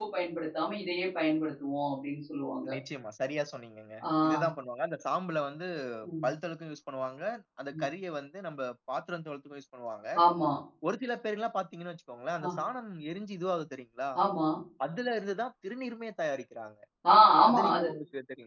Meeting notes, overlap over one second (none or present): none